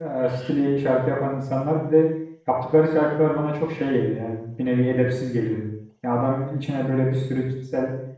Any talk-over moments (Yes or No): No